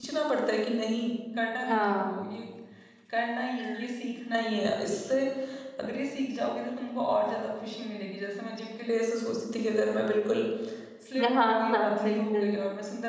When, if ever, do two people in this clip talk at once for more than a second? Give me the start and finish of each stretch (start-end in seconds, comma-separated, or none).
11.2-12.6